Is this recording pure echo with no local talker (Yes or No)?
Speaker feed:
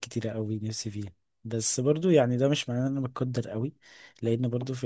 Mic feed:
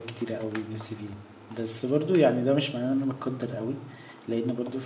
Yes